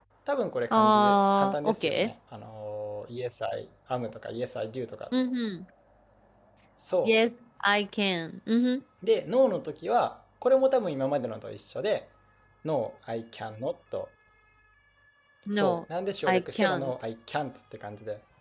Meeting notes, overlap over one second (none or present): present